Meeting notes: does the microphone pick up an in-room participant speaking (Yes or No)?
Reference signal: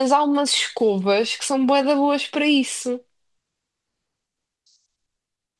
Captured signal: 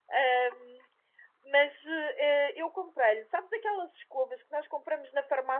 Yes